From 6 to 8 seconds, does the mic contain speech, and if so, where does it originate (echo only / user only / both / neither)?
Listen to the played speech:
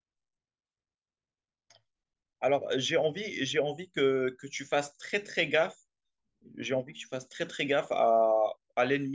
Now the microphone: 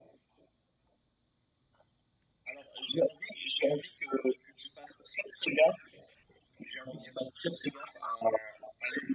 echo only